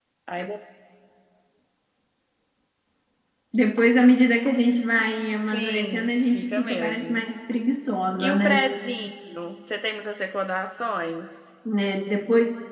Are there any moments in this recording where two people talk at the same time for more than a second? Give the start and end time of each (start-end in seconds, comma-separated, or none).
5.5-7.2